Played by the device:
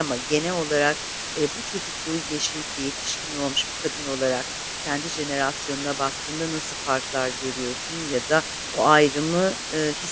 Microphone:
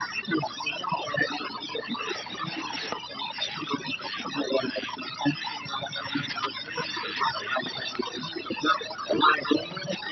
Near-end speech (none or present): none